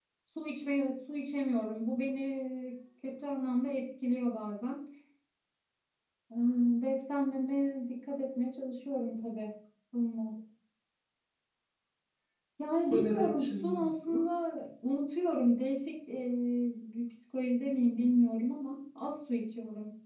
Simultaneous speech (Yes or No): Yes